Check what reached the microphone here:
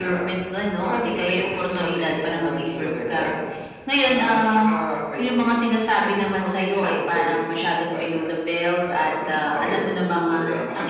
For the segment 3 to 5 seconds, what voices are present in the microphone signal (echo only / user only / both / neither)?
echo only